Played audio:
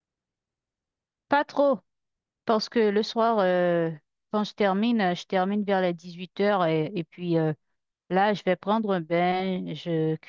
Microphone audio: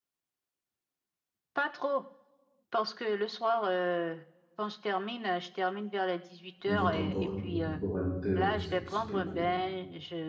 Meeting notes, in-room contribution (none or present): present